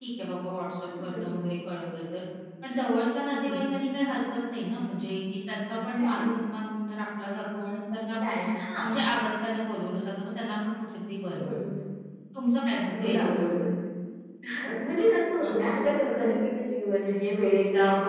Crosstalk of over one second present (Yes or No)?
No